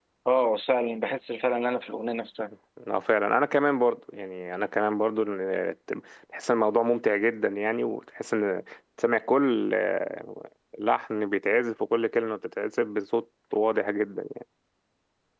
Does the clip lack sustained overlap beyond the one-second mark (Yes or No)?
Yes